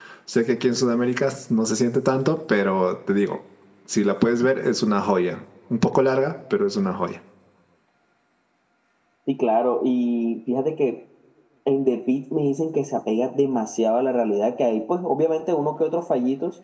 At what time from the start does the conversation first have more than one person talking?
none

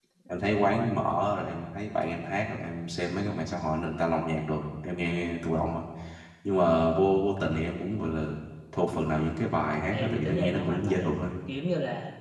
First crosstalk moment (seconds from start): 10 s

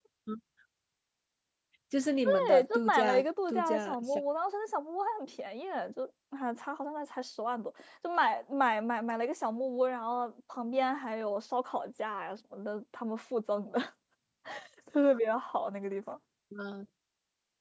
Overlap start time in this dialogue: 2 s

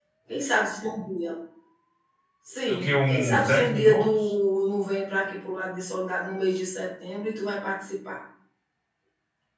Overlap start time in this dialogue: 3 s

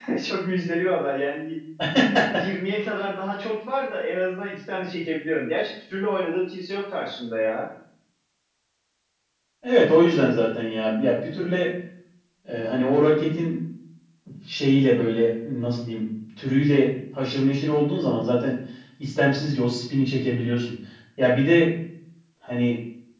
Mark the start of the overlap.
none

